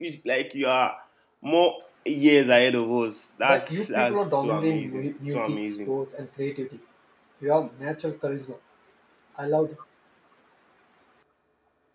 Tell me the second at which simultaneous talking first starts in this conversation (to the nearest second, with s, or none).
3 s